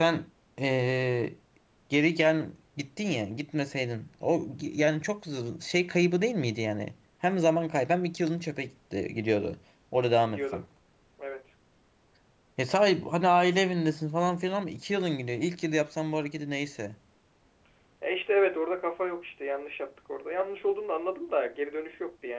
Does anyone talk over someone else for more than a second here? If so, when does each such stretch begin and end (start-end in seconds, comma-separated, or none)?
none